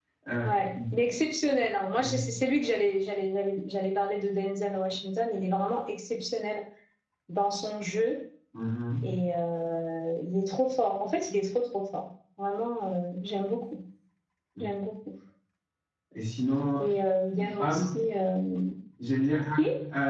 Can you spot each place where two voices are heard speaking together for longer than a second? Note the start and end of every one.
none

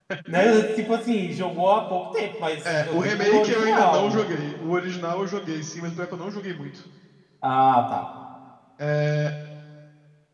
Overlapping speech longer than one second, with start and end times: 2.7-4.2

